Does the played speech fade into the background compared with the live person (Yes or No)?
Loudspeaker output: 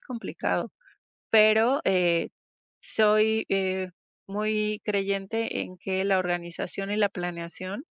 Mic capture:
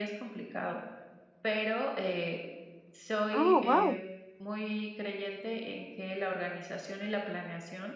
Yes